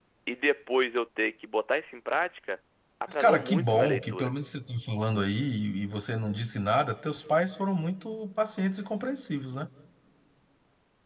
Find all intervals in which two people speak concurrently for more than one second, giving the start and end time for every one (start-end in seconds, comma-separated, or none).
3.1-4.3